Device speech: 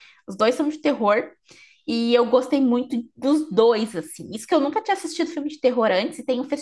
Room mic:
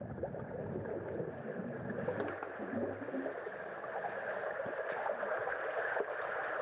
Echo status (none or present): none